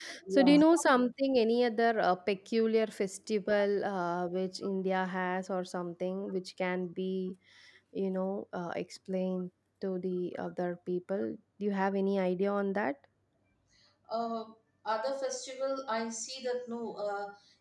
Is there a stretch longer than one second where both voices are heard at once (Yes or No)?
No